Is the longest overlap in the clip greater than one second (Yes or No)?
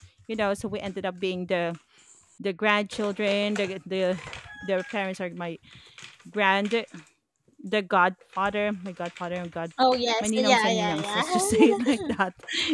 Yes